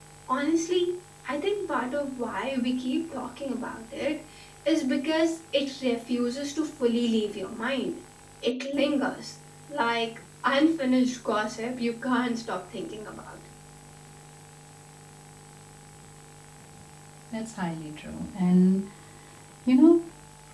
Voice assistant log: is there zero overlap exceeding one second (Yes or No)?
Yes